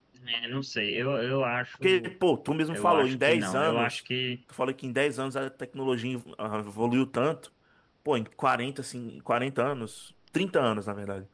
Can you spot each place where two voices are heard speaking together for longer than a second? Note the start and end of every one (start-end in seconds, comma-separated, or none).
2.7-4.0